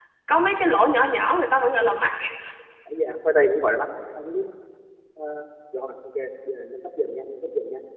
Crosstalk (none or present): none